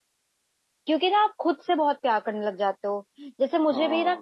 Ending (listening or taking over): listening